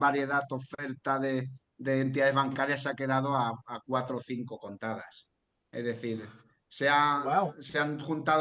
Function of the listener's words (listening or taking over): listening